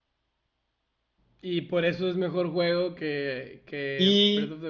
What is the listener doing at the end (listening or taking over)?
taking over